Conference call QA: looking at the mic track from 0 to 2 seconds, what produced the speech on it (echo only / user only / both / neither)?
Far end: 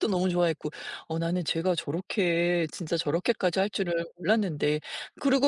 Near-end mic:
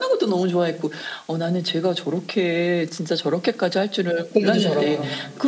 echo only